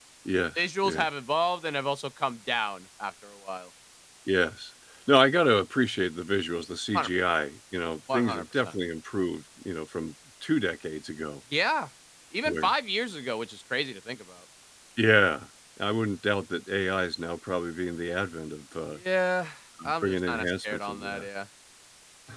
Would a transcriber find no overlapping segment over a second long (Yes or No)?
No